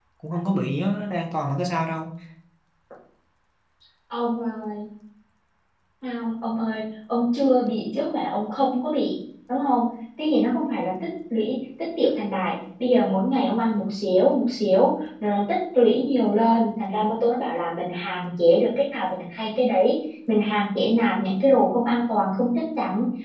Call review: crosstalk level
none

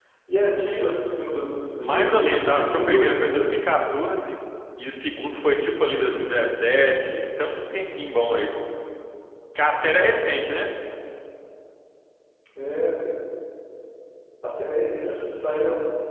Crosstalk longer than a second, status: present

